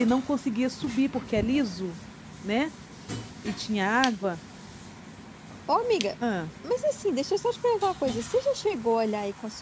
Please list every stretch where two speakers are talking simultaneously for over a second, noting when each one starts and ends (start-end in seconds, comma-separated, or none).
none